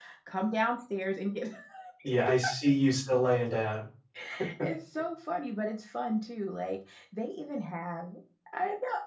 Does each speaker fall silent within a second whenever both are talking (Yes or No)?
Yes